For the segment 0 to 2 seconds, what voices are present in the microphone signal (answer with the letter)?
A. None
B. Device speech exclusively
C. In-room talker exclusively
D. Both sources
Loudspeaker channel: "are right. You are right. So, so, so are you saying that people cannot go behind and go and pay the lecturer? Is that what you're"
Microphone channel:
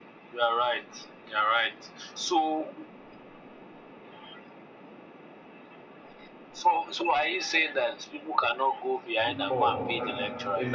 B